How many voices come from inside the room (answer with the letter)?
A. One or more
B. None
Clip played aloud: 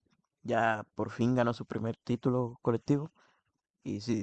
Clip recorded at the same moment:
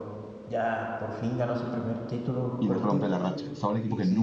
A